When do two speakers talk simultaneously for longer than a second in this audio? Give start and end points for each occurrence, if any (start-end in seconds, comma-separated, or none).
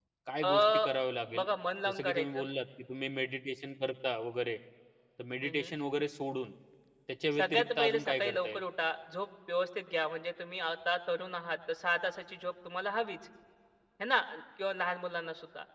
7.4-8.6